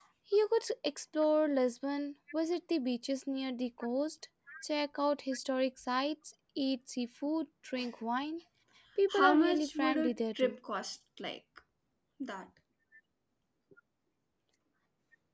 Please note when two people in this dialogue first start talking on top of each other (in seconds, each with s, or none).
9.2 s